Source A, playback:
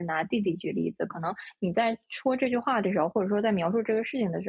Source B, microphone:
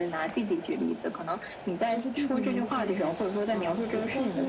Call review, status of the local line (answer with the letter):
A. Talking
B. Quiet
A